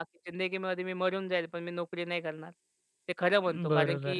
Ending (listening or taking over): listening